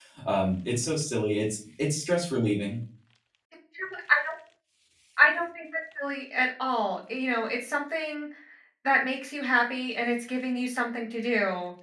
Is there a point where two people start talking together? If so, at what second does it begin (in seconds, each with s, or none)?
none